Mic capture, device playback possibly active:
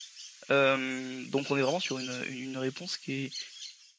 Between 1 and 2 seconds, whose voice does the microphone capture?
user only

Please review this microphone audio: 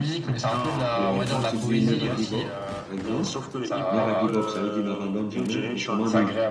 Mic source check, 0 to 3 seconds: both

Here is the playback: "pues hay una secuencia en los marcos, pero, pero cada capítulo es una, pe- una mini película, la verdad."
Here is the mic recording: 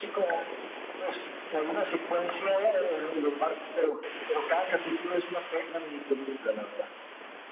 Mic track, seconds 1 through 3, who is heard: echo only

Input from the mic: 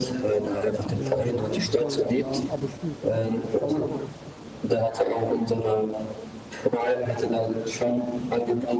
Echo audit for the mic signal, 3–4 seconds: both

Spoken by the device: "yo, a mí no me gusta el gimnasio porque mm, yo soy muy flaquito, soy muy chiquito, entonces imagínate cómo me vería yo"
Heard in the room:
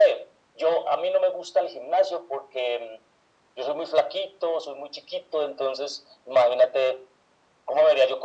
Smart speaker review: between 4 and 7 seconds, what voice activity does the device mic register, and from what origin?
echo only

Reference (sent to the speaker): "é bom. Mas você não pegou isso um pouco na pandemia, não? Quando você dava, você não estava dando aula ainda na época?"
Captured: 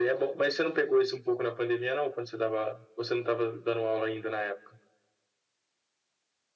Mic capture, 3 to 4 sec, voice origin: echo only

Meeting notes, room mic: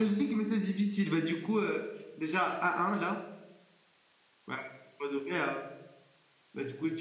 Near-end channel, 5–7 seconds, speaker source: echo only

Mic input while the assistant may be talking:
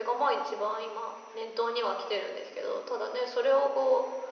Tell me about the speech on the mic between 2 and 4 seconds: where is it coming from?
echo only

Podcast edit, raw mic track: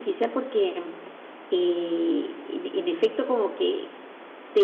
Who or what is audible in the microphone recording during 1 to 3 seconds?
user only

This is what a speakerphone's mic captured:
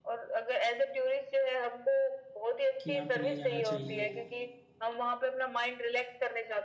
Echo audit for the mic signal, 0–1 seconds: echo only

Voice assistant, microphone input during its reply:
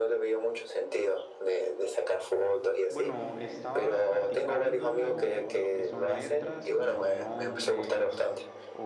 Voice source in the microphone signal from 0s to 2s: echo only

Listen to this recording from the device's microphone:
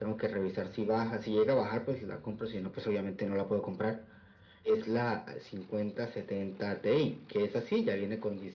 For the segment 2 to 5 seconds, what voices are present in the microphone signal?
echo only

